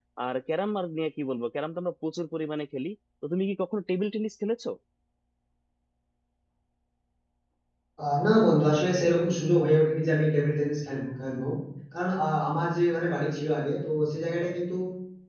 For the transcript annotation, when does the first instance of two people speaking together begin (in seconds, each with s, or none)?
none